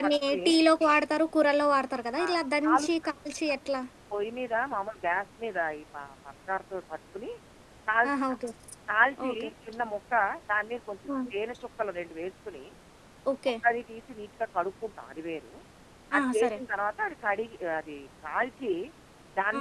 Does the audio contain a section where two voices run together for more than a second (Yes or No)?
No